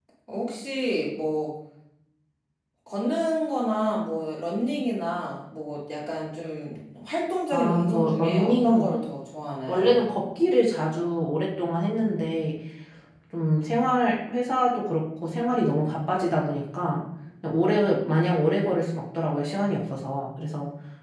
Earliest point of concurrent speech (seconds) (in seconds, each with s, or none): 7.5 s